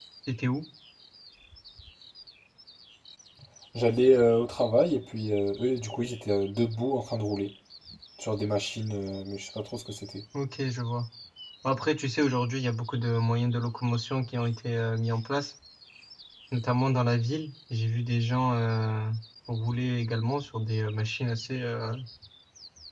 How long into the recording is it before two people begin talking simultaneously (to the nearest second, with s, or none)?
none